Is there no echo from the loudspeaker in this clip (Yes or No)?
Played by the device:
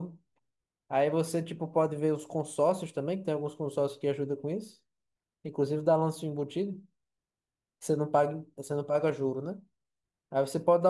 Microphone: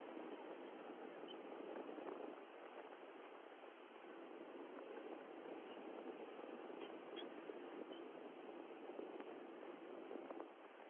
Yes